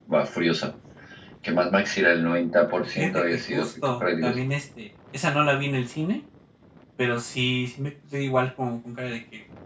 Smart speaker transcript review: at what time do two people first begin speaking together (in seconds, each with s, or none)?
2.8 s